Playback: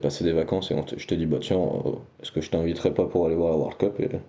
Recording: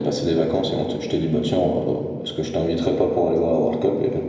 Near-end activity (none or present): none